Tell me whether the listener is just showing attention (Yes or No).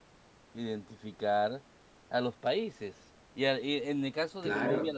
Yes